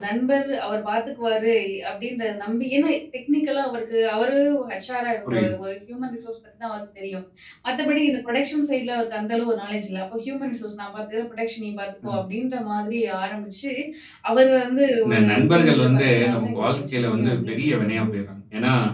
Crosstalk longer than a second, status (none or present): present